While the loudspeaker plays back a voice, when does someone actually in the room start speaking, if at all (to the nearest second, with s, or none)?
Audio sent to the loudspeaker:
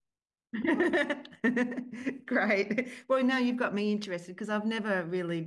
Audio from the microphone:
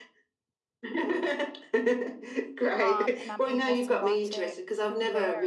3 s